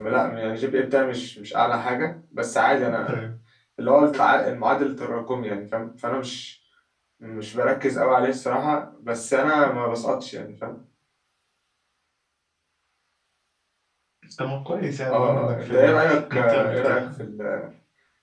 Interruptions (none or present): present